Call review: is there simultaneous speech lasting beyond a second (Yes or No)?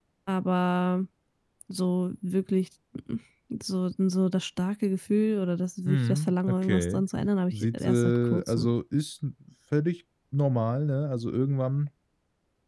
Yes